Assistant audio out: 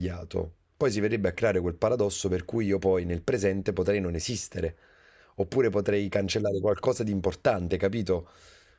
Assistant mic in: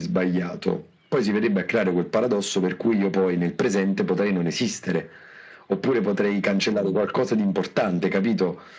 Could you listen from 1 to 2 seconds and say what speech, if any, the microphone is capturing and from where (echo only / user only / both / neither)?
echo only